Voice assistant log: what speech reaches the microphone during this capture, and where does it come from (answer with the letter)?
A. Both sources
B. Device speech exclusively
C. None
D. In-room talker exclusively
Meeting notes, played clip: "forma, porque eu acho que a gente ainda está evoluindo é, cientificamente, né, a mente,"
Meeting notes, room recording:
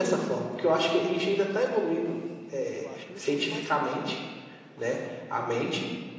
A